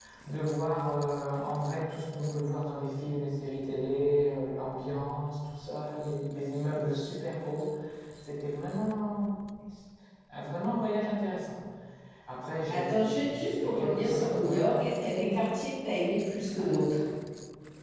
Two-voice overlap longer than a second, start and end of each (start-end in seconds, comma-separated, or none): 12.6-15.3